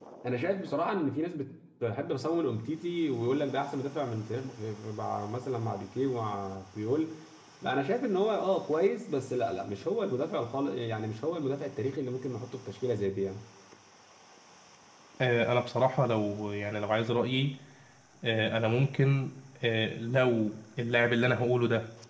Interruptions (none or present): none